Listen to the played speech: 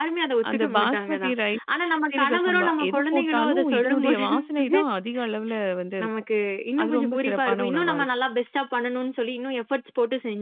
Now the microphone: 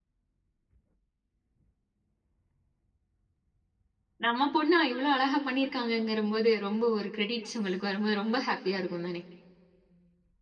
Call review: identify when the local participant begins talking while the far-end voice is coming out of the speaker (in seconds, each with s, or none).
4.2 s